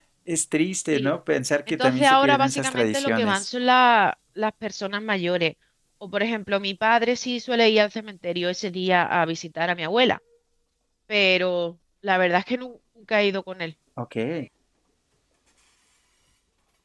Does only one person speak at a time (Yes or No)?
No